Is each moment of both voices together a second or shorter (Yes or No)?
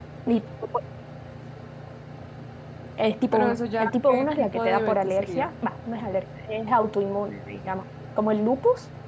No